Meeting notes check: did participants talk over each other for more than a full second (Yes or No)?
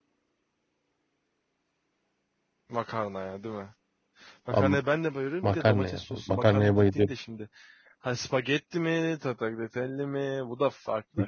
Yes